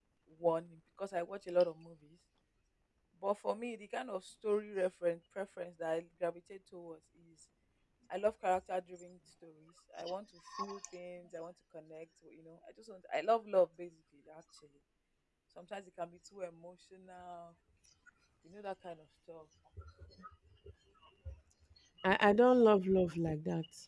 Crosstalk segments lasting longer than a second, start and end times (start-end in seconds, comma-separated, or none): none